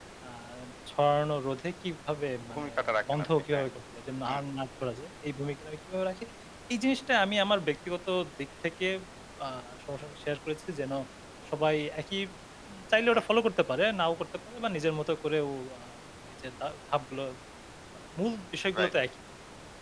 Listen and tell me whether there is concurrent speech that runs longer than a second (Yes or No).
No